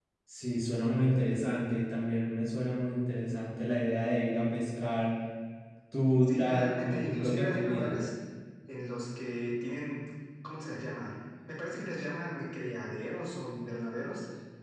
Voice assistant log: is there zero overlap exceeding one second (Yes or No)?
No